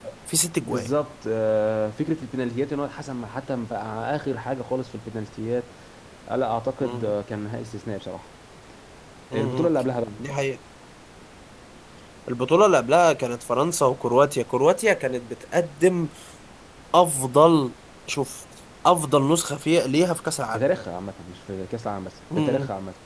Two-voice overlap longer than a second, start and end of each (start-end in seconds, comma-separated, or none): none